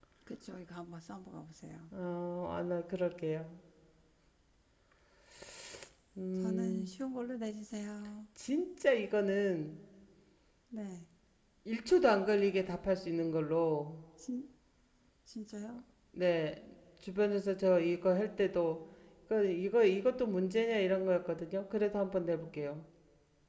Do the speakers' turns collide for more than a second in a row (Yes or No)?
No